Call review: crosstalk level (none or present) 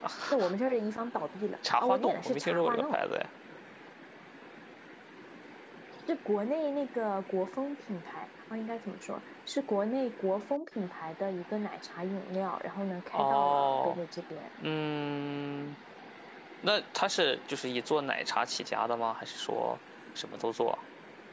present